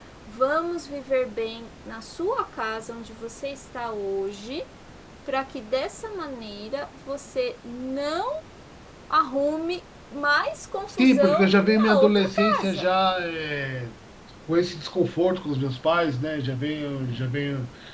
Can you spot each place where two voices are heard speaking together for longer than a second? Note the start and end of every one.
10.9-12.9

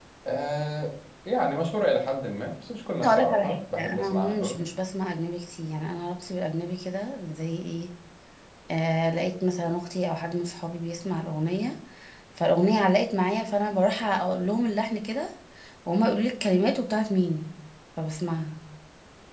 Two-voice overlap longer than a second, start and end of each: 3.0-4.6

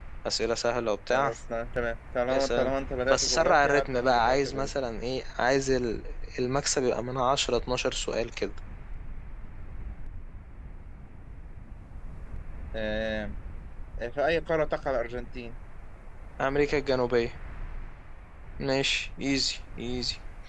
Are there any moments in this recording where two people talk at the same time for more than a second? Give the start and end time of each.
3.1-4.7

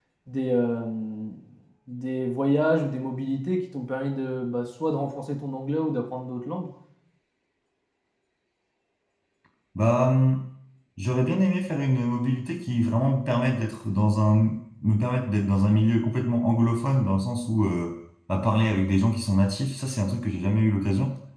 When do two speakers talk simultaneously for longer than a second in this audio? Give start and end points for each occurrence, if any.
none

